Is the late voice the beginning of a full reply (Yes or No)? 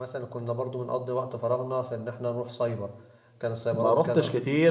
Yes